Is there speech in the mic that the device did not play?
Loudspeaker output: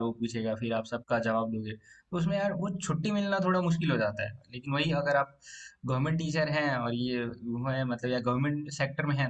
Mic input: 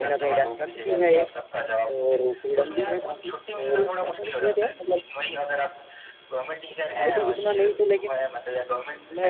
Yes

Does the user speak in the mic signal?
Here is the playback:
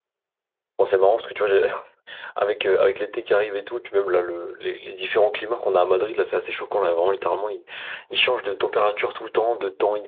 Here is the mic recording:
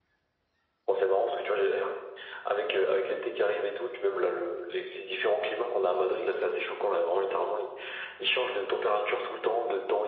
No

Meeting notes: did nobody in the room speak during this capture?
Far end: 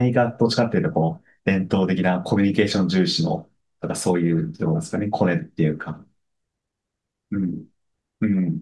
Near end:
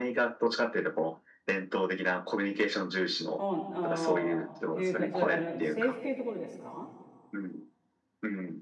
No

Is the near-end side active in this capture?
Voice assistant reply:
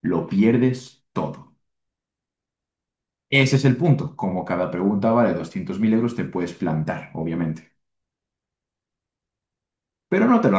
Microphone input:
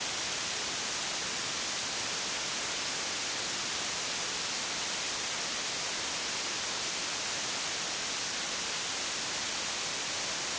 No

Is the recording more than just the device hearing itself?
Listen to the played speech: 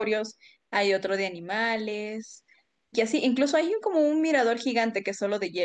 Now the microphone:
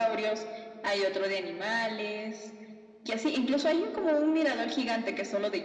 No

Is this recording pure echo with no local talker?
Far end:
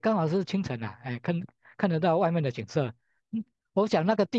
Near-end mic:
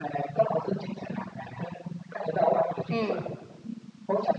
No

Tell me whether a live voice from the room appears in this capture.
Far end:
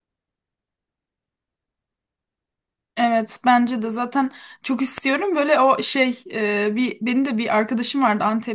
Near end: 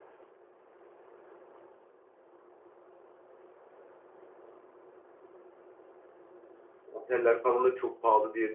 Yes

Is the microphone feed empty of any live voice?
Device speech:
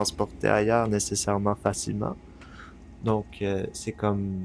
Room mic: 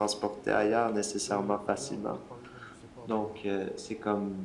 No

